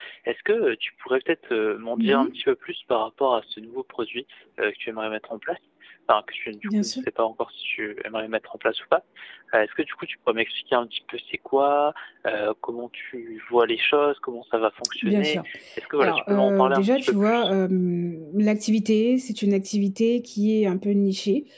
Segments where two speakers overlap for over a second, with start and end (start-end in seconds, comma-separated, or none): 16.0-17.5